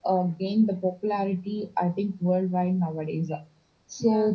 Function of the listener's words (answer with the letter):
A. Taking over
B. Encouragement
B